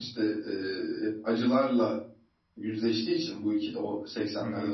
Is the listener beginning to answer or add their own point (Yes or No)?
No